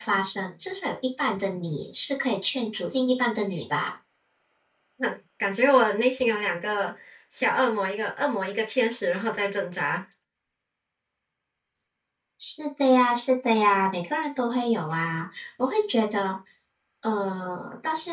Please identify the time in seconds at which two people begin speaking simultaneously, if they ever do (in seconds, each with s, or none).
none